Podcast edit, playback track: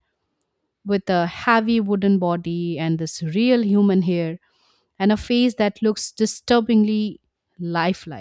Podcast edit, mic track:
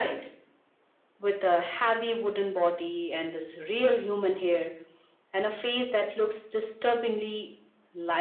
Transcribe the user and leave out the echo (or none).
none